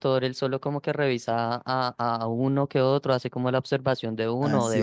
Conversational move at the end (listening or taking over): taking over